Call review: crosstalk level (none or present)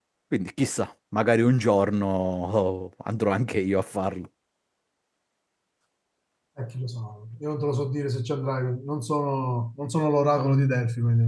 none